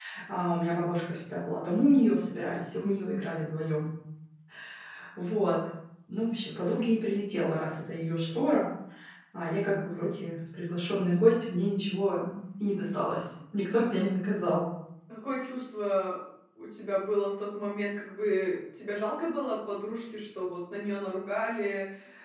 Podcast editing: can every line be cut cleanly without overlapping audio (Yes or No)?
Yes